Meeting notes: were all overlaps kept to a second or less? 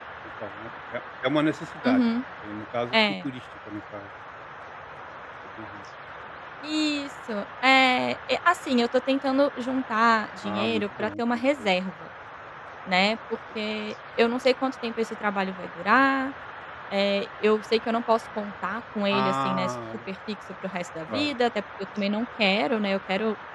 No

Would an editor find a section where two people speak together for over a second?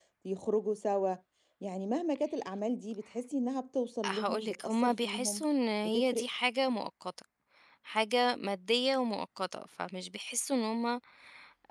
Yes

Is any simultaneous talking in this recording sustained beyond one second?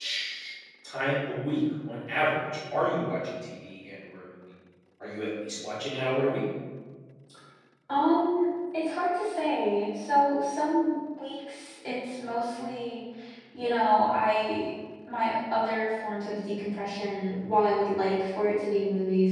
No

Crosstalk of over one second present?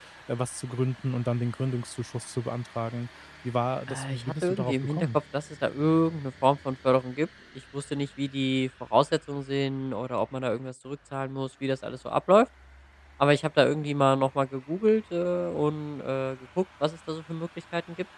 Yes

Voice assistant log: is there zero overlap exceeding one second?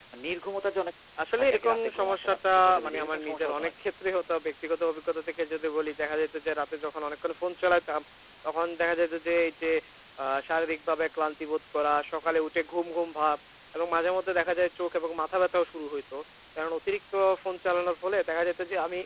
No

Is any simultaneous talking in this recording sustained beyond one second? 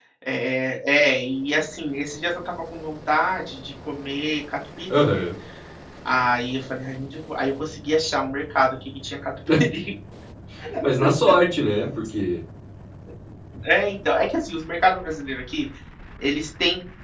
No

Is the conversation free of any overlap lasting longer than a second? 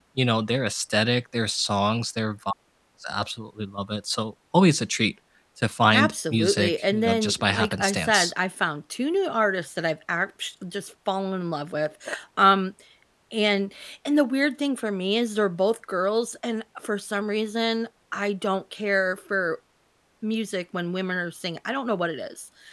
No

